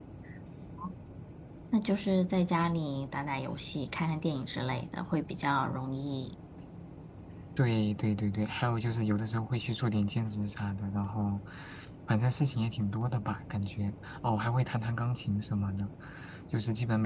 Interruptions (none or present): none